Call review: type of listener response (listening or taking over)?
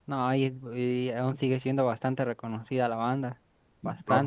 taking over